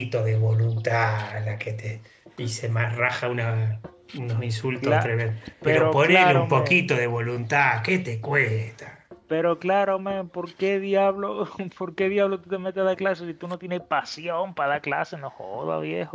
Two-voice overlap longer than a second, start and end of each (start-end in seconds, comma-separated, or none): 5.6-7.0